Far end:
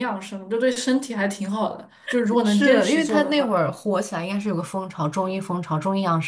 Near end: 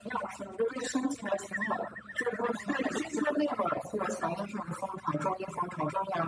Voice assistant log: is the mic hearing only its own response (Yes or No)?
Yes